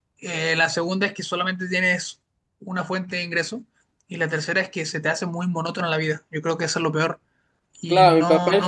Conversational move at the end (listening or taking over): taking over